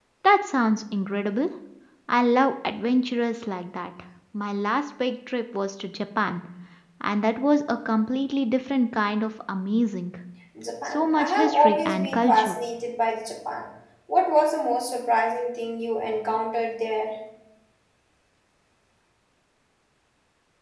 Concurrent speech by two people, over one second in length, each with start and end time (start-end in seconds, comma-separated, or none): 10.8-12.6